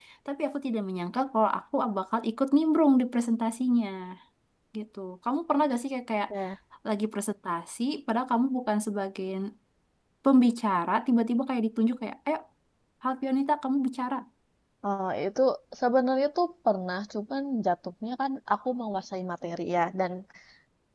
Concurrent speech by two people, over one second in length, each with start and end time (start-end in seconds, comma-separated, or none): none